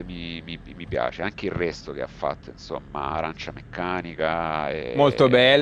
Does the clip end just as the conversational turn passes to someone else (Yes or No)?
Yes